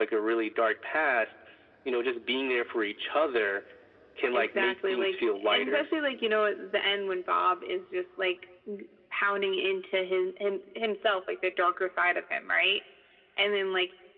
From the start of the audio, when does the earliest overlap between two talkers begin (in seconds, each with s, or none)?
4.3 s